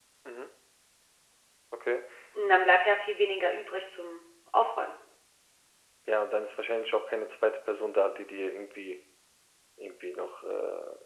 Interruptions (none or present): none